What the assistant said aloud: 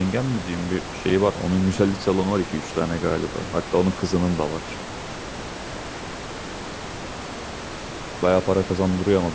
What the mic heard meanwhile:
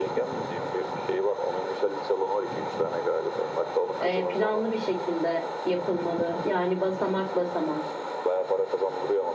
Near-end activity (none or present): present